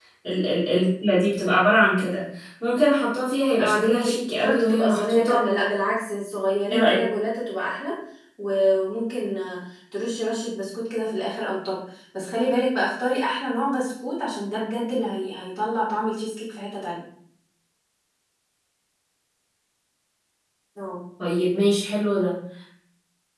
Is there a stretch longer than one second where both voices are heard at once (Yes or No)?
Yes